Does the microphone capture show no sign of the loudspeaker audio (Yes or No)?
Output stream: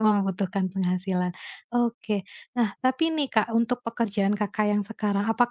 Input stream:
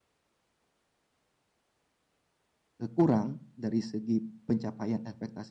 Yes